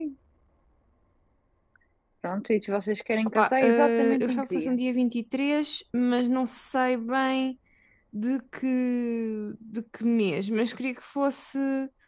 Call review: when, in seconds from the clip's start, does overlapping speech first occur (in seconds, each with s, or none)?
3.3 s